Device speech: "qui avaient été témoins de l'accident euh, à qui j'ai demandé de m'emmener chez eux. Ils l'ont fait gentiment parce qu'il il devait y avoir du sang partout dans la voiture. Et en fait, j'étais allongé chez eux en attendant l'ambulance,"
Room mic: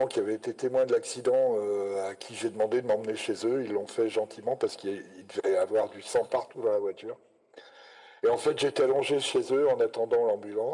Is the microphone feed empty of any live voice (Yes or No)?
Yes